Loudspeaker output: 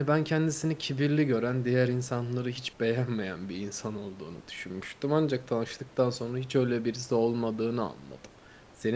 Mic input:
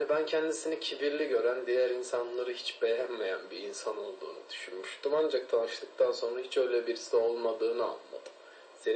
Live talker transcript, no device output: none

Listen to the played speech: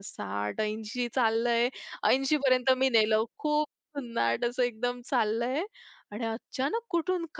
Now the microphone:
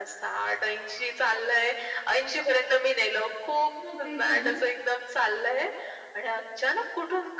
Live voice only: मग काय झालं?

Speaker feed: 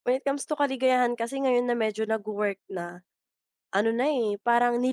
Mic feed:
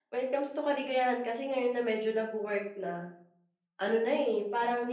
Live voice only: none

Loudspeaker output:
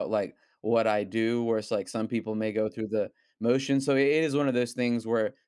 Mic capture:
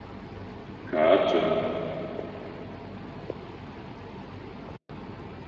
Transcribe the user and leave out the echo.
Gotcha.

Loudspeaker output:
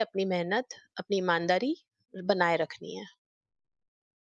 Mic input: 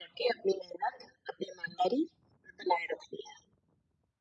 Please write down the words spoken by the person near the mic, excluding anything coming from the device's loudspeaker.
none

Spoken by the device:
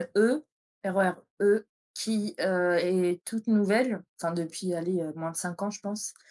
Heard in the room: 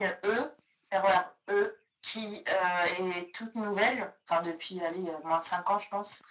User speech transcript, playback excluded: none

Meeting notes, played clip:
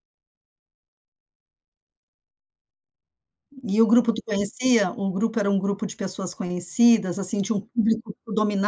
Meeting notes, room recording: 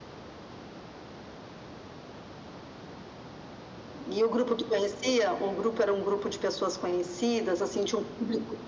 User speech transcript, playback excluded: none

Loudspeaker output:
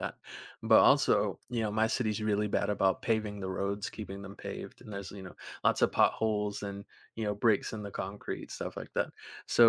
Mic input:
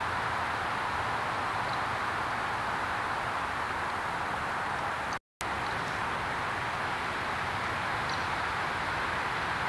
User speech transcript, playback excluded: none

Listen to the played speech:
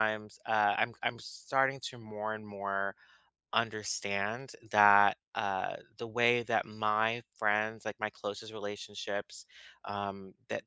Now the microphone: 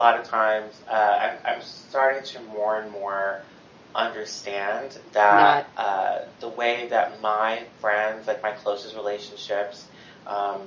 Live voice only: not

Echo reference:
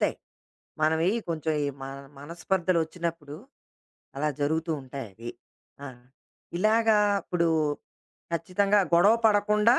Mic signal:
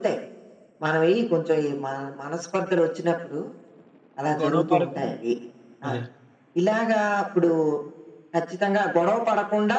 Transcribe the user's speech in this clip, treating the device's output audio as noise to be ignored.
గొడవ పడకుండా అదే.

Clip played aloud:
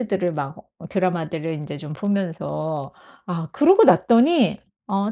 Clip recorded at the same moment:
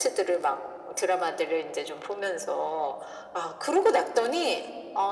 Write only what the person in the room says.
none

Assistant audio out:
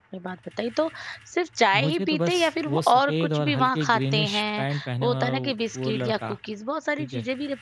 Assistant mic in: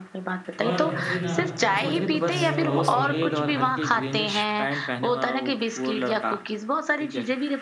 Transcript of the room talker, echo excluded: और मुझे ना सबसे अच्छी चाय अगर और भी लगती है कहीं की,

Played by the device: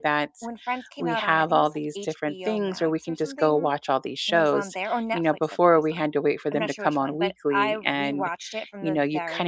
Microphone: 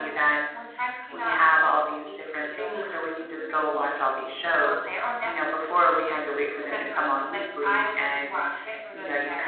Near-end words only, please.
none

